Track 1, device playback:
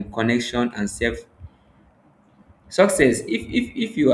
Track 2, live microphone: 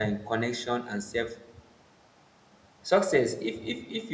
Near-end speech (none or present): none